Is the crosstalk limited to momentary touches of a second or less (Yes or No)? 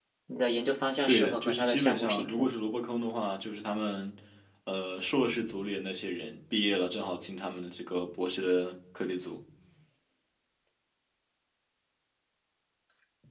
No